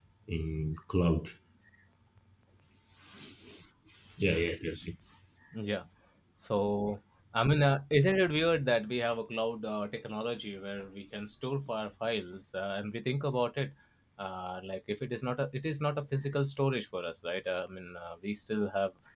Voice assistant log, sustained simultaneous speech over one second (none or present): none